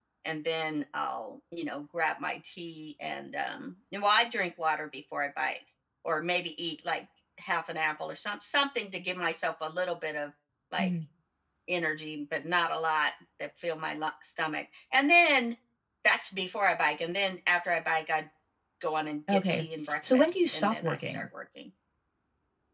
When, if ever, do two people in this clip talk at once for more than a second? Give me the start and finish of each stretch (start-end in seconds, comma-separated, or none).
19.3-21.2